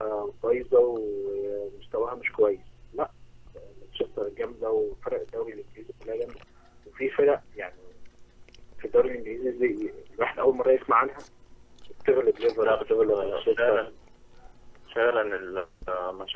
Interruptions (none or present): present